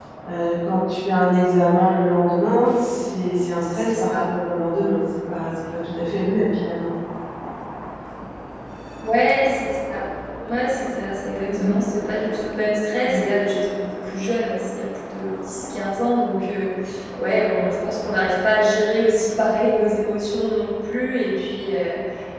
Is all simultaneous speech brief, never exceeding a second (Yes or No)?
Yes